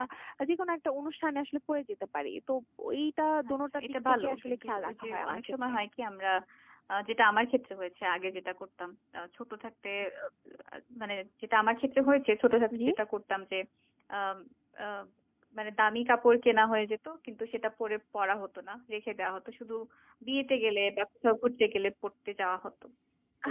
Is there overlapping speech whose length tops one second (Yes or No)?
Yes